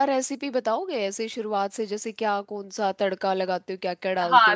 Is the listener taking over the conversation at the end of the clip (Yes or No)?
Yes